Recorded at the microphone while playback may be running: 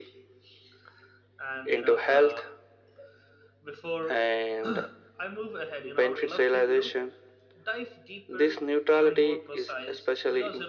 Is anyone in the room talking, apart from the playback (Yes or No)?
Yes